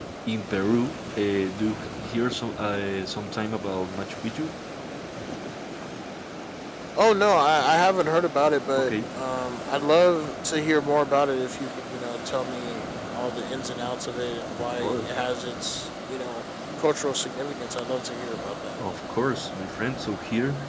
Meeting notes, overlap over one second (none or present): none